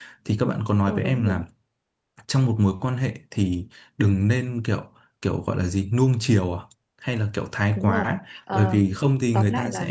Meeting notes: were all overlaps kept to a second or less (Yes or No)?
Yes